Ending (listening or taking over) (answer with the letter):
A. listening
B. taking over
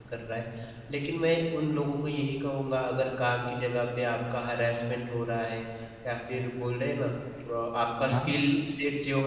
A